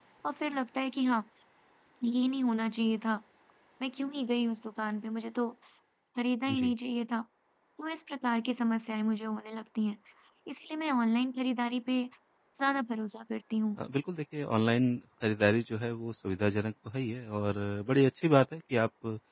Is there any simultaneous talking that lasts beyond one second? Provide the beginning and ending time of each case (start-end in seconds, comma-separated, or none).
none